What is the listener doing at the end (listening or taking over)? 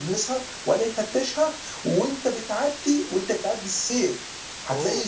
listening